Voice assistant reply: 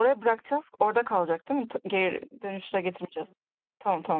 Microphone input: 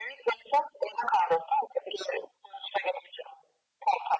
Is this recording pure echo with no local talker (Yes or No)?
Yes